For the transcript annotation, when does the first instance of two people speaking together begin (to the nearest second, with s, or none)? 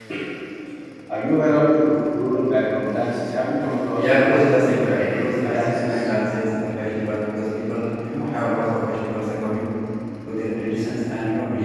4 s